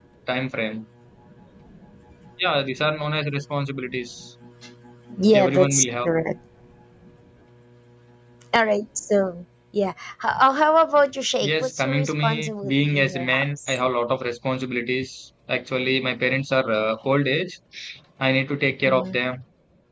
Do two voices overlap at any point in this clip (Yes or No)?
Yes